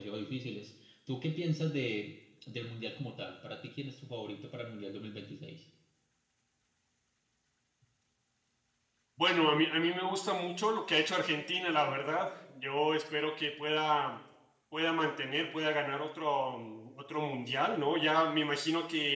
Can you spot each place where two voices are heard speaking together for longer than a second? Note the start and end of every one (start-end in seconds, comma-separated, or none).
none